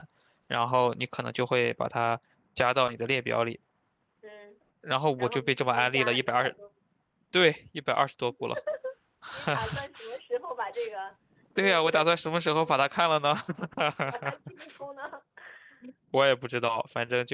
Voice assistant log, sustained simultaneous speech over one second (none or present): present